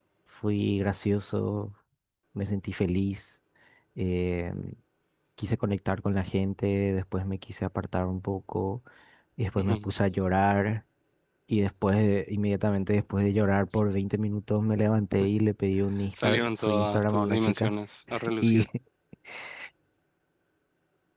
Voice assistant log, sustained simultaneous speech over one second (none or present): present